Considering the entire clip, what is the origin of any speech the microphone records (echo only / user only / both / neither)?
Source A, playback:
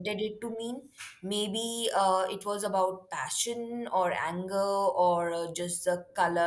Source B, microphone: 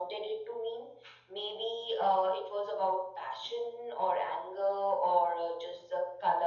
echo only